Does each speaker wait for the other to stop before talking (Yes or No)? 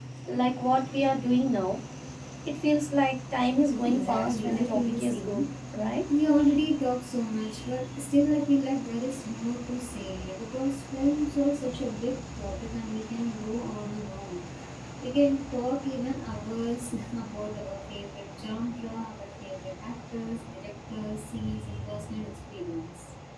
No